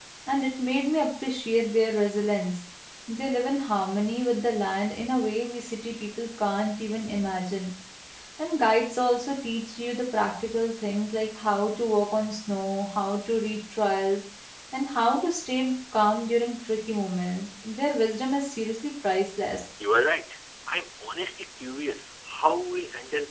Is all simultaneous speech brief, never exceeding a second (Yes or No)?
Yes